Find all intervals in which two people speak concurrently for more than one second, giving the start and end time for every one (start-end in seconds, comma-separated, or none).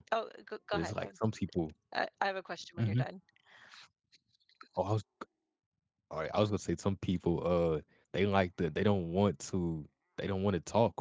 none